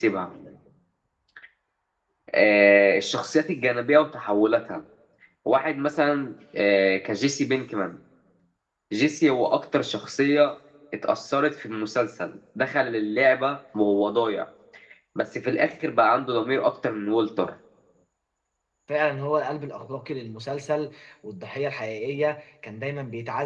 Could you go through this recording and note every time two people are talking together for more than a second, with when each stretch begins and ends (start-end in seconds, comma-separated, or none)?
none